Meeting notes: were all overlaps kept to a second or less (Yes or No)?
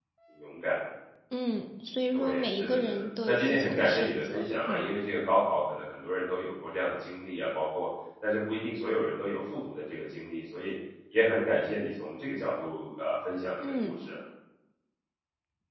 No